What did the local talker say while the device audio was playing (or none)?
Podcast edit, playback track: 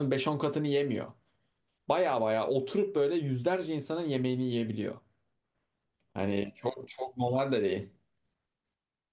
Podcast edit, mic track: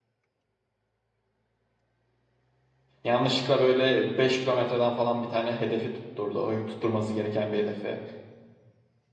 Yanlışlıkla böyle 5 kilometreden falan bir tane hedefi tutturdu. O tutturması gereken bir hedefi.